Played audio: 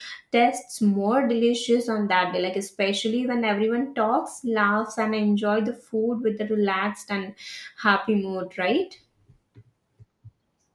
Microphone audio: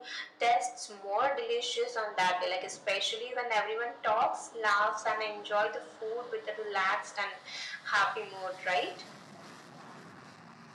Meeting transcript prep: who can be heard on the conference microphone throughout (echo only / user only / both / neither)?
echo only